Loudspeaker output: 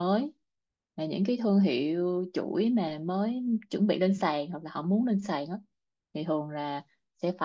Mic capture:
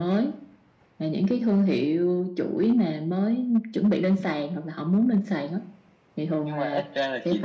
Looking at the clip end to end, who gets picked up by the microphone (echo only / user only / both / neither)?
both